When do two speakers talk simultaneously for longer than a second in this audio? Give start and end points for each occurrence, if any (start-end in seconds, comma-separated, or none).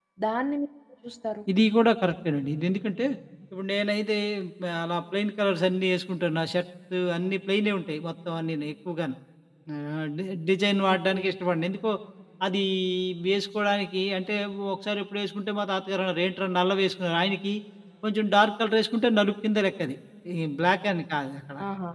none